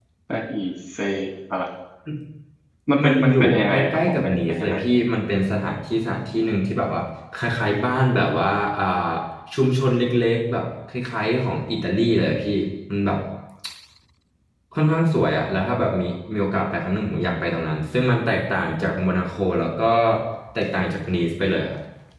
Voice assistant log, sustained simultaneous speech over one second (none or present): present